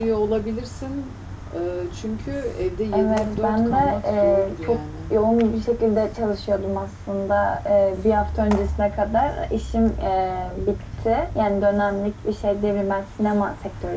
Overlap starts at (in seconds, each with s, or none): 2.9 s